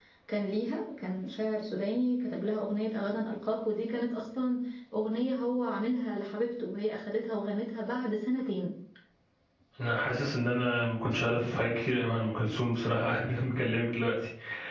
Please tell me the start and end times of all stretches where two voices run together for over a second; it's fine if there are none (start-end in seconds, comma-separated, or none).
none